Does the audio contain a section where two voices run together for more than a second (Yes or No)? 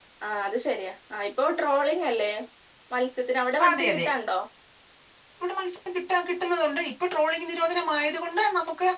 No